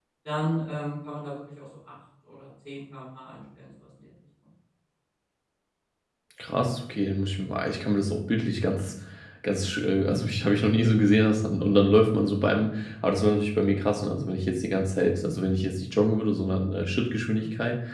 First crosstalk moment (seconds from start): none

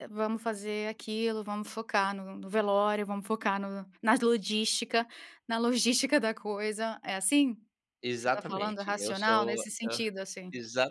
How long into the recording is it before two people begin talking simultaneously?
8.0 s

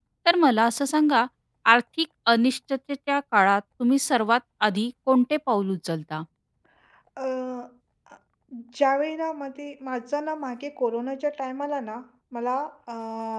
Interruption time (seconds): none

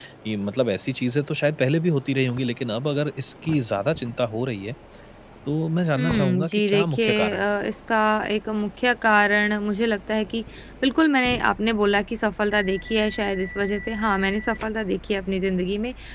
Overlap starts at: 6.0 s

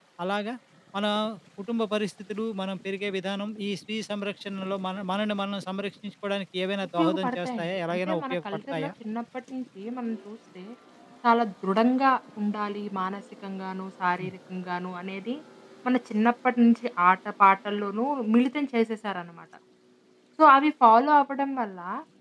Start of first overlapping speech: 7.0 s

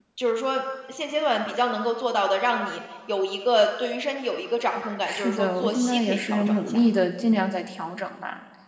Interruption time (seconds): 5.1 s

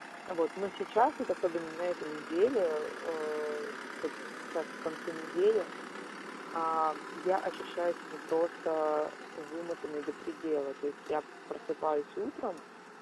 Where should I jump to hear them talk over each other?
none

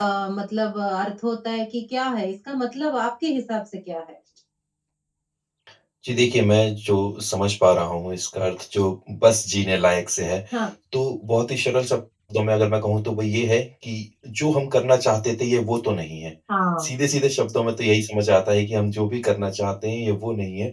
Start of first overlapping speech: none

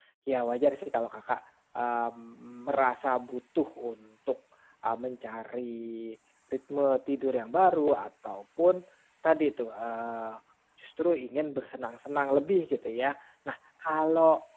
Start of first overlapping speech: none

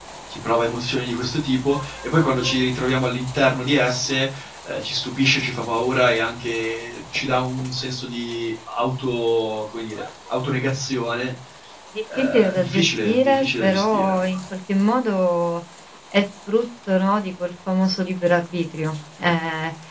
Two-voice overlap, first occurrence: 12.2 s

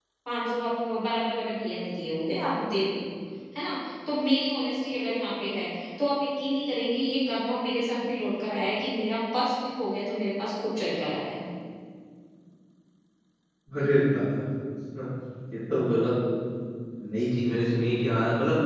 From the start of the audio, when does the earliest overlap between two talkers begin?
none

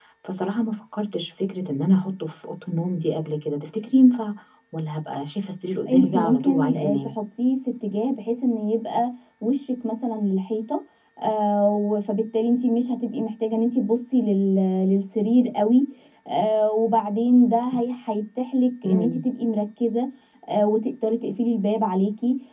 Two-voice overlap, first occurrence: 5.9 s

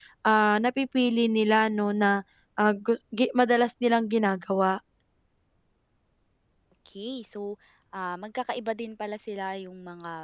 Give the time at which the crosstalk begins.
none

